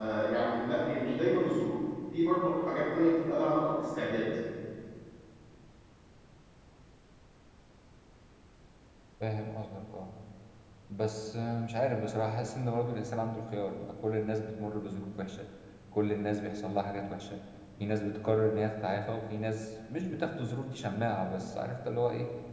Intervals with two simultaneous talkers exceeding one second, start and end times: none

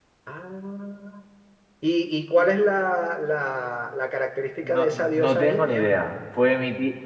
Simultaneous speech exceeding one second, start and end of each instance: 4.6-5.9

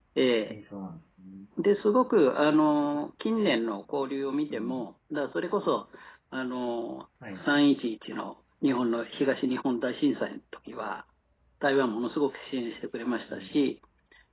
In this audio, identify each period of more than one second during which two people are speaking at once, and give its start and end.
none

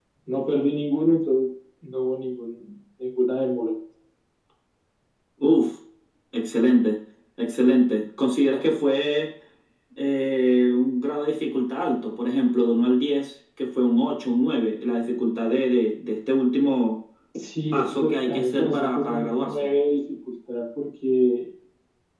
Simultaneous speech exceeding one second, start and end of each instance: 17.7-19.7

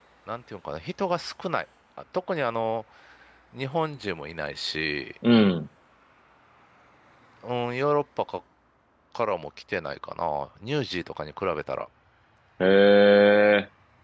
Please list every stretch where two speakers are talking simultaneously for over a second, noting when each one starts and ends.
none

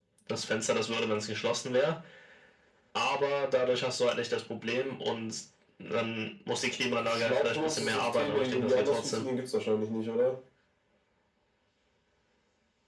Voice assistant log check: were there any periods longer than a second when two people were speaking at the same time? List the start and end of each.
7.0-9.2

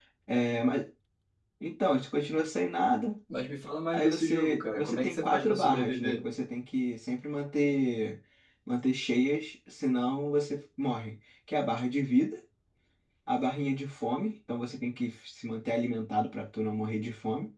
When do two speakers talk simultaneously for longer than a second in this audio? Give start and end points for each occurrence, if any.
3.9-6.3

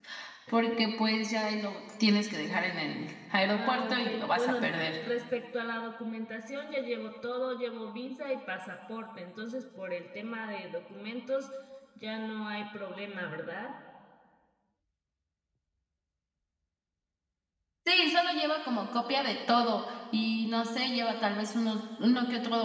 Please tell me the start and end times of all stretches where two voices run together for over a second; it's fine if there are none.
3.5-5.0

